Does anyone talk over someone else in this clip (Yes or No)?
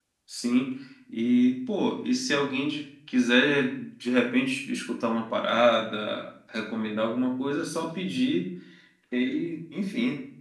No